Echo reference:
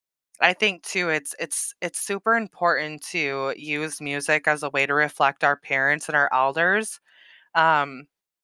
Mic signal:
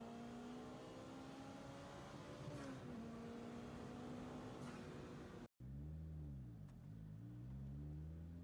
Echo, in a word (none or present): none